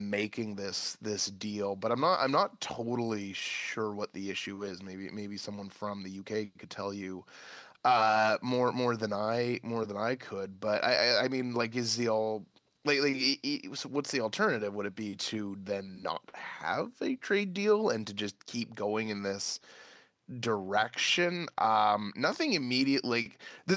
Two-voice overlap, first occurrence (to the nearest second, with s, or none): none